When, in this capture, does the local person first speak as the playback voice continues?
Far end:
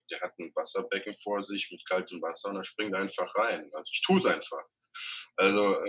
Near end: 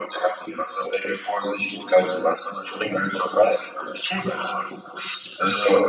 none

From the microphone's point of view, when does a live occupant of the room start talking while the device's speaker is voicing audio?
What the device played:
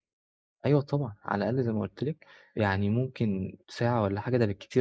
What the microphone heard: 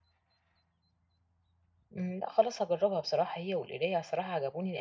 1.9 s

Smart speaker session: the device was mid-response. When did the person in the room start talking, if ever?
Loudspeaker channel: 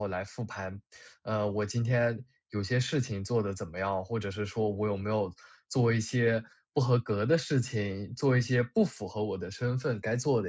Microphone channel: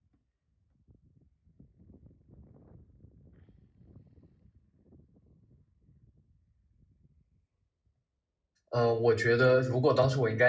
8.7 s

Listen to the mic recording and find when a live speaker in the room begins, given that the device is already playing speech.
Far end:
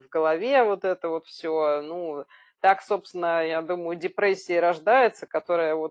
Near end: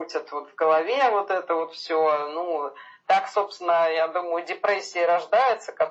none

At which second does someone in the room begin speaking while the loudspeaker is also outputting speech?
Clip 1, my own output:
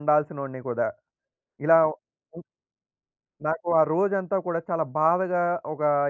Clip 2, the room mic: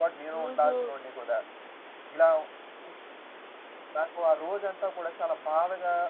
0.4 s

